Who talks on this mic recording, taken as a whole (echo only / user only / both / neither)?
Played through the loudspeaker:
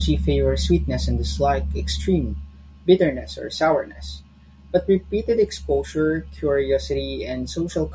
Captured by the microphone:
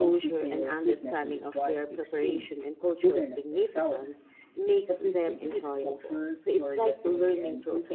both